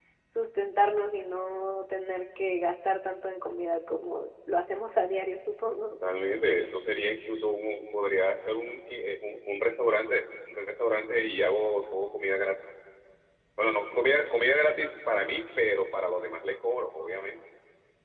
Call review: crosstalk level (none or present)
none